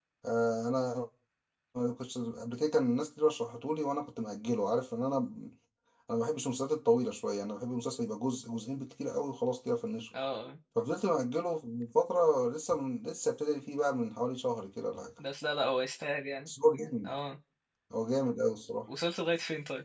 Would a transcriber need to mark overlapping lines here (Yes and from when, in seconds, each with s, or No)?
No